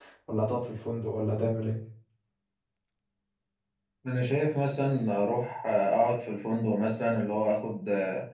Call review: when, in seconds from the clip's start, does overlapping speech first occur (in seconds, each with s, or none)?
none